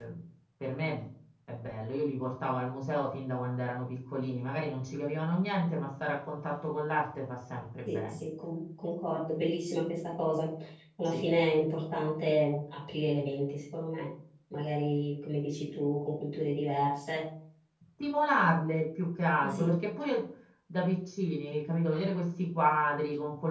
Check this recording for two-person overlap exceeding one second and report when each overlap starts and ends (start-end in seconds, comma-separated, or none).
none